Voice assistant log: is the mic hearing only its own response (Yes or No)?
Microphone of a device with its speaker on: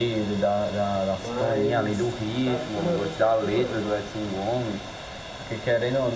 No